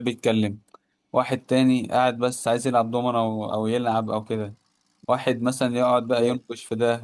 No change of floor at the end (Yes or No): Yes